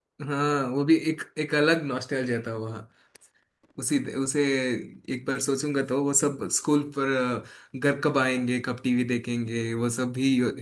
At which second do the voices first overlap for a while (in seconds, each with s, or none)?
none